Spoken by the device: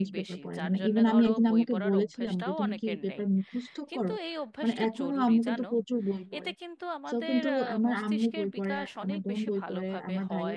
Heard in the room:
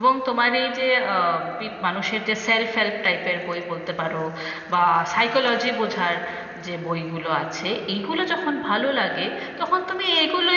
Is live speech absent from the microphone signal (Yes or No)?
No